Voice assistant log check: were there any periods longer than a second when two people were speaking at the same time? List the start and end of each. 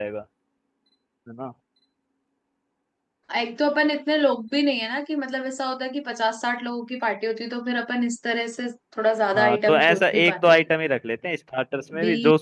9.4-10.6

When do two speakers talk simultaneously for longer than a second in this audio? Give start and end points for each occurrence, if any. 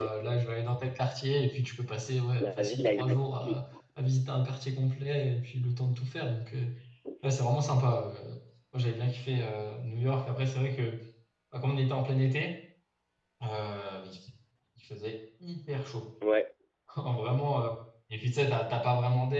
2.4-3.6

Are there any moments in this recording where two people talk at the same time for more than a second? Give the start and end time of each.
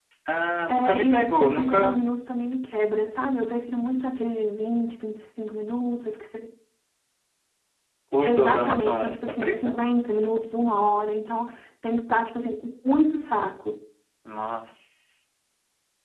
0.7-2.0, 8.2-9.8

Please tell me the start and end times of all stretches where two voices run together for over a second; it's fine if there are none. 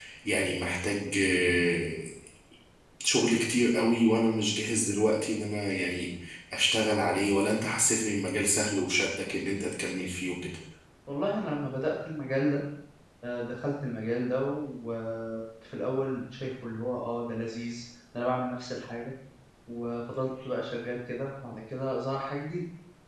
none

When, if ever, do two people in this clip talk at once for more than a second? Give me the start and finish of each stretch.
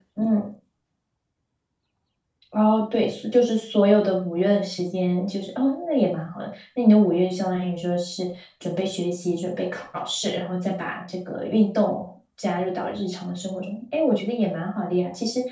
none

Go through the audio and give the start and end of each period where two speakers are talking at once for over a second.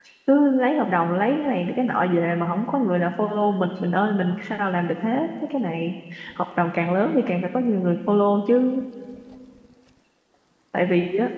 none

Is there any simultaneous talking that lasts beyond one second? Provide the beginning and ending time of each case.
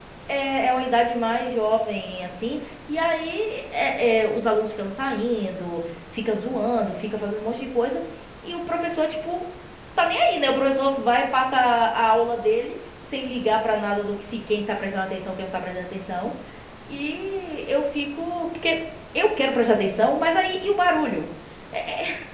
none

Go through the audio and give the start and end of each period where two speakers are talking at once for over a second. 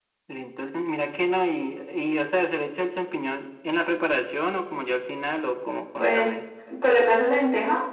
none

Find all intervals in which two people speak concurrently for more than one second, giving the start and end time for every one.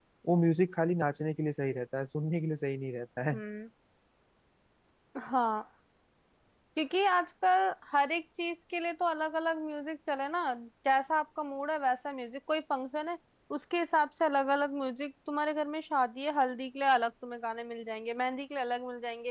none

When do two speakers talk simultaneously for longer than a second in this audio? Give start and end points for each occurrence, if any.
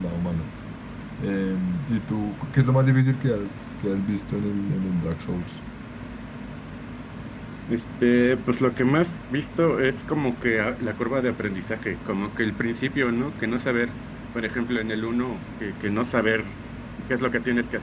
none

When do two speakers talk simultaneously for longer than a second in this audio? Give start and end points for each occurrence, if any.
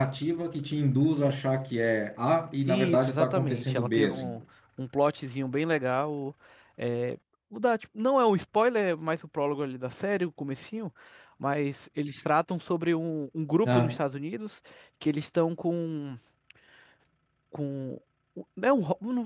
2.7-4.4

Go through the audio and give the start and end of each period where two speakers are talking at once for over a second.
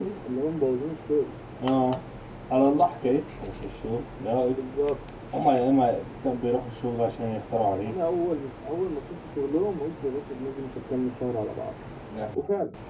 none

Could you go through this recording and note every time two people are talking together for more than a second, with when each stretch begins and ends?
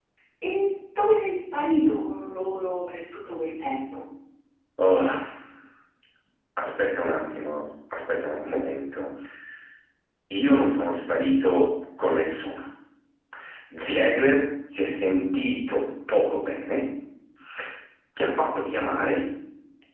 none

